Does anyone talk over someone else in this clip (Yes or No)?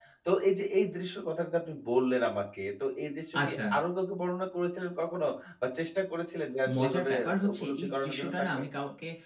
Yes